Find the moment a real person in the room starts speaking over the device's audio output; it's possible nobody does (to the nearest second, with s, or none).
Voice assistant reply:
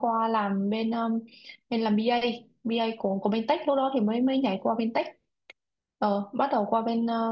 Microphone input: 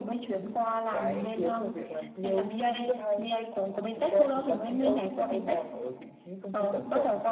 1 s